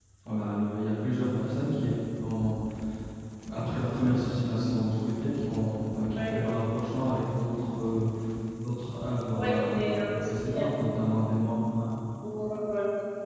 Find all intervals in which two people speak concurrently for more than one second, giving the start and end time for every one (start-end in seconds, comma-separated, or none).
9.3-10.7